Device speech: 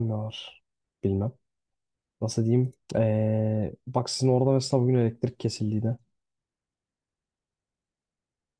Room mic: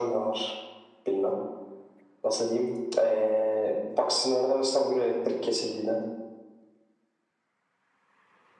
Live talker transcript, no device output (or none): none